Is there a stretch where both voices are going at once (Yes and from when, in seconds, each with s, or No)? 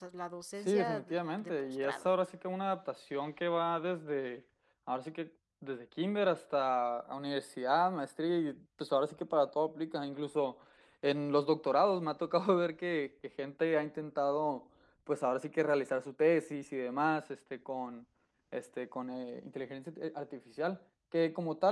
Yes, from 0.7 s